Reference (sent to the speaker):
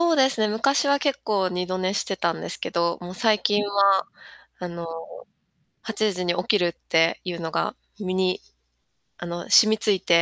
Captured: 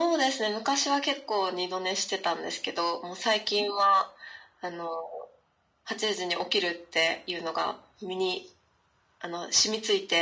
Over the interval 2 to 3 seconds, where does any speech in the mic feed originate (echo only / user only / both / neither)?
echo only